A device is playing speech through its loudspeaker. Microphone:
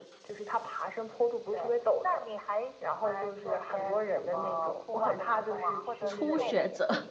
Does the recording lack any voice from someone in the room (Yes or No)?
No